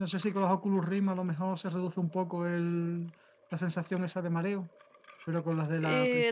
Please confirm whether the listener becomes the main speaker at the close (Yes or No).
Yes